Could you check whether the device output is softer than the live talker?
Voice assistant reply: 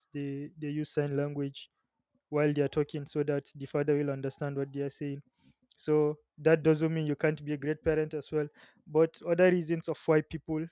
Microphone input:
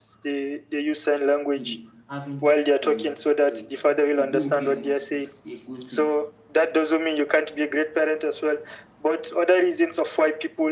No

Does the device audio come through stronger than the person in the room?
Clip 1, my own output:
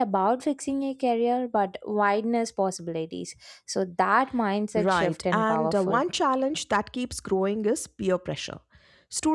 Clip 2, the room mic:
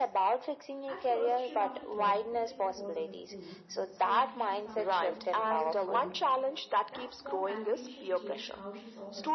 Yes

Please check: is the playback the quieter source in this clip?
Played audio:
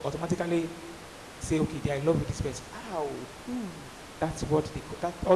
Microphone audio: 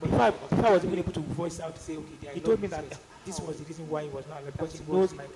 Yes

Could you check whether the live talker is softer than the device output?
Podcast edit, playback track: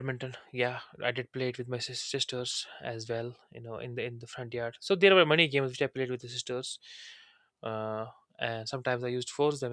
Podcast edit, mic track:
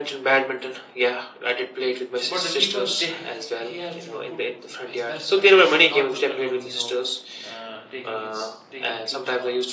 Yes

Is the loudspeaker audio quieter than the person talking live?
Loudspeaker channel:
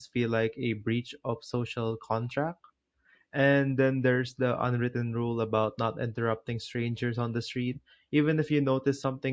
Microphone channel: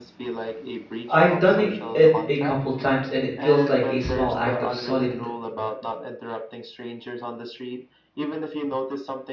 Yes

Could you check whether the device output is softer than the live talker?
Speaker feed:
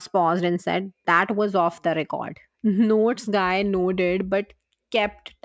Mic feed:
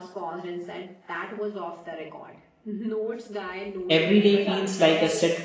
Yes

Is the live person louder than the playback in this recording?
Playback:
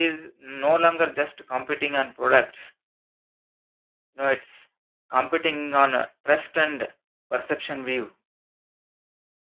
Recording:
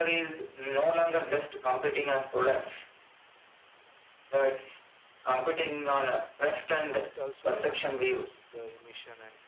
No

